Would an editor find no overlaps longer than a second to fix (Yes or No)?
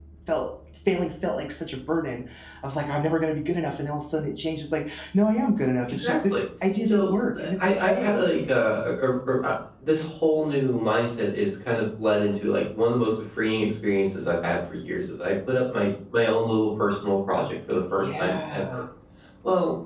No